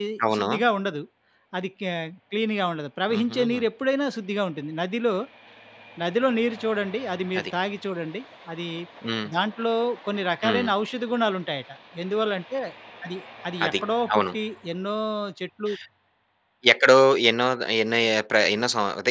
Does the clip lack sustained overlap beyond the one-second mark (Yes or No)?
Yes